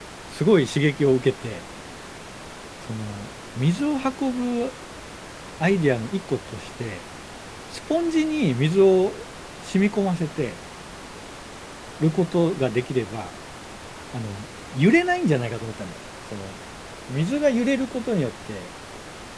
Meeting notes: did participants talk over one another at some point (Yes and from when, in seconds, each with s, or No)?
No